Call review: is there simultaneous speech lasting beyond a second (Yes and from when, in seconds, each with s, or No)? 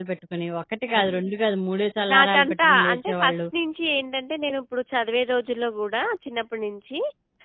Yes, from 2.1 s